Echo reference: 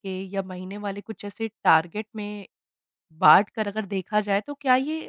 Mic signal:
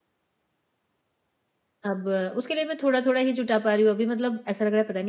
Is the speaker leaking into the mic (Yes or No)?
No